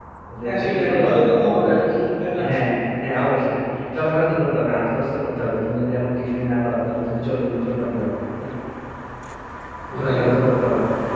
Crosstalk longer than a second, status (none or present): present